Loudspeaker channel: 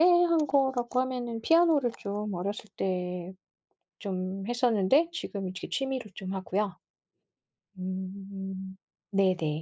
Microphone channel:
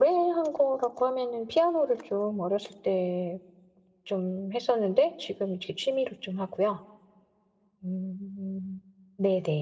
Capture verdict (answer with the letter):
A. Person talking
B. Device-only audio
B